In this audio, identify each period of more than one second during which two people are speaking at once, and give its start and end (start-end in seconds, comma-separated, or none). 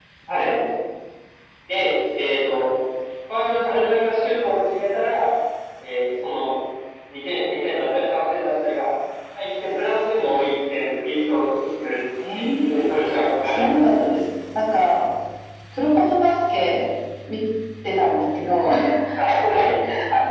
12.3-14.2